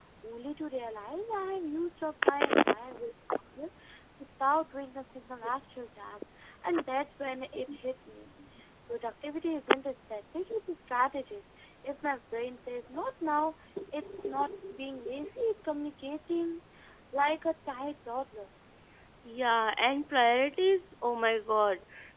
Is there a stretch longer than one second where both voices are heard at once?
No

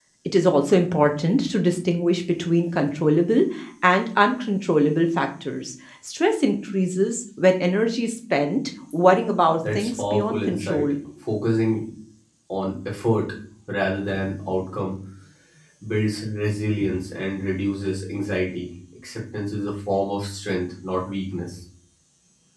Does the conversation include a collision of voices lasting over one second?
Yes, from 9.6 s

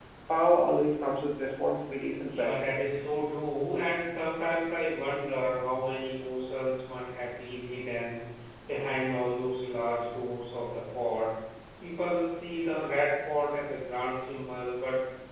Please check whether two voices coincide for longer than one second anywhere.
No

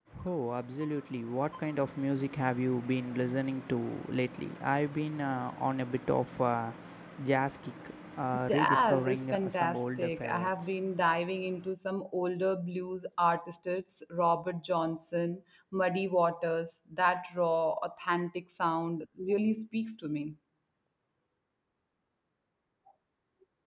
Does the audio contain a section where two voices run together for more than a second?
Yes, from 8.5 s

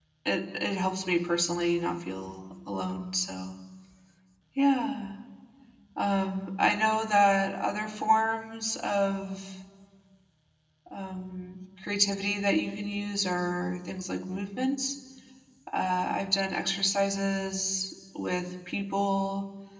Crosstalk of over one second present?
No

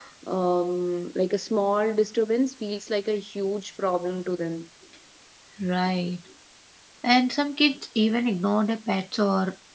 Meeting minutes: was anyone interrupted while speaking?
No

